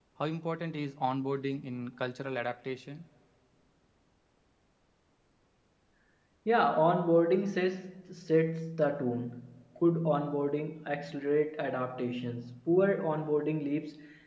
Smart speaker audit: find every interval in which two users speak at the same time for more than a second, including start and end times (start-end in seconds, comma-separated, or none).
none